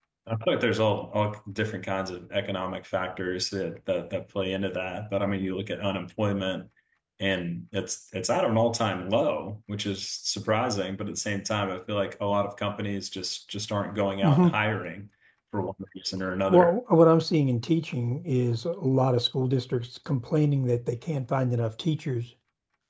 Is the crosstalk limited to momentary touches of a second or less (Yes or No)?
Yes